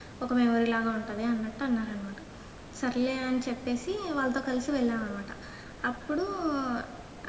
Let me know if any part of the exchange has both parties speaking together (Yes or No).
No